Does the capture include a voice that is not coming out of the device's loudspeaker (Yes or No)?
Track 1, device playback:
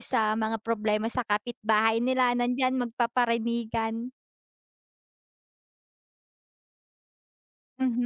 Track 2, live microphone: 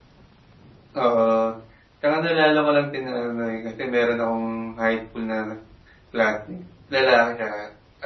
Yes